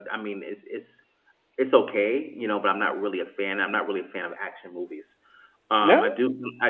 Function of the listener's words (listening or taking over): listening